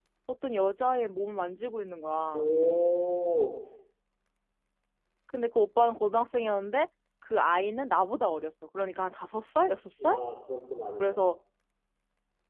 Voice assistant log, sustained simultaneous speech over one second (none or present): none